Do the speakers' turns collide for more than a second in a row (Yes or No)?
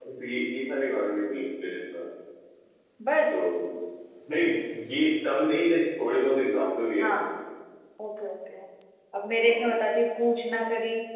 No